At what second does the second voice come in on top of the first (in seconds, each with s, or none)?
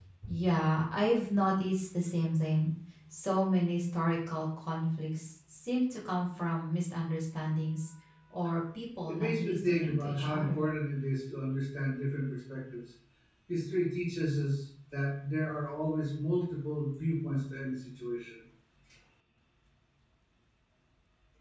9.1 s